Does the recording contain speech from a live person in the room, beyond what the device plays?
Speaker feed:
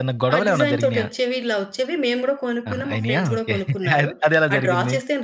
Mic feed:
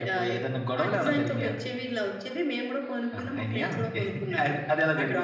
No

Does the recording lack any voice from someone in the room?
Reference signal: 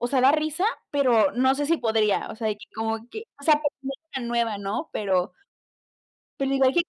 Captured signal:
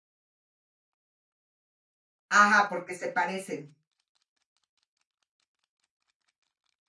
No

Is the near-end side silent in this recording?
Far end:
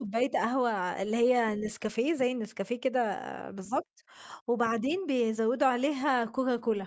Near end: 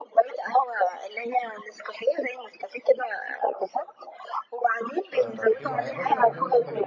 No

